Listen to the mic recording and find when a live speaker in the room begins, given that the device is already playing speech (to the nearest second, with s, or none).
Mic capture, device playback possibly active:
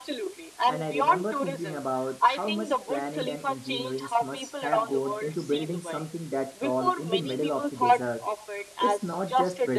1 s